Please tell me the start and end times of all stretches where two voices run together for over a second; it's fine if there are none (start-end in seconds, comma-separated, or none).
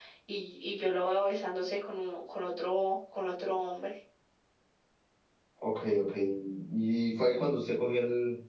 none